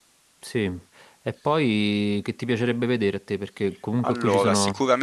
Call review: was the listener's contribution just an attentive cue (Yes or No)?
No